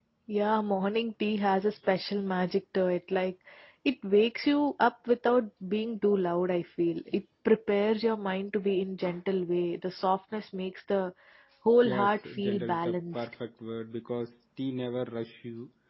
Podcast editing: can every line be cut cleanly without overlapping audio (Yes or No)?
No